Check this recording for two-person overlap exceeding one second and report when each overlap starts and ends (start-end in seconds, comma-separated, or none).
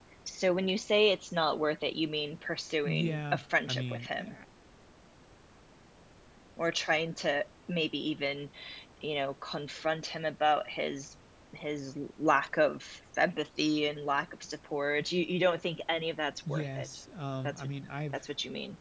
2.8-4.3